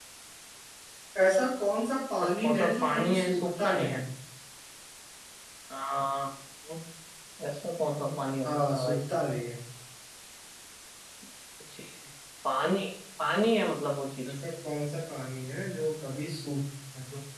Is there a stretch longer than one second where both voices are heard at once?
Yes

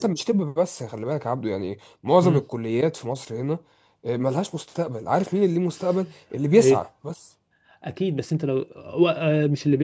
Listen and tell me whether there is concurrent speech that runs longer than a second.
No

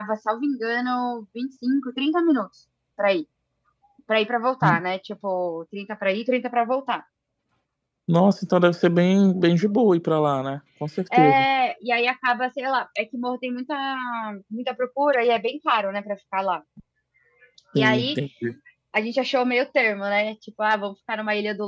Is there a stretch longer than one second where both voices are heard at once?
No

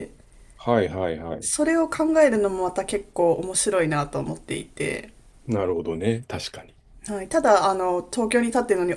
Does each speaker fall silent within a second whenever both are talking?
Yes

